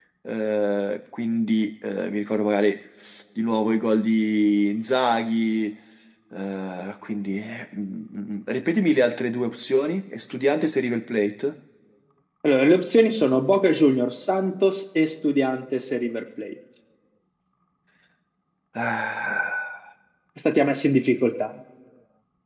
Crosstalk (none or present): none